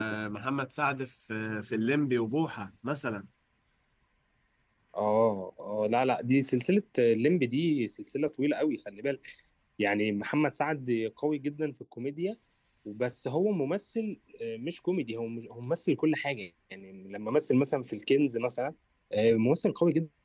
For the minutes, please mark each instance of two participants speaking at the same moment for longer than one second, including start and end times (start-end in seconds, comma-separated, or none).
none